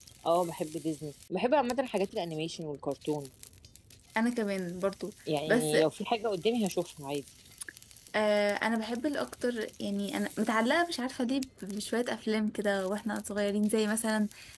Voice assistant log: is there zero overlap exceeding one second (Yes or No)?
Yes